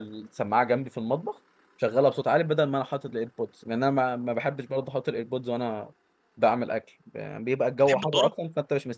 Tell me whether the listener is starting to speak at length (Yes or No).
No